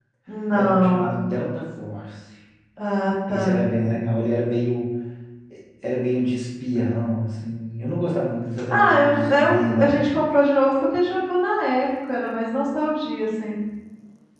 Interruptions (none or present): present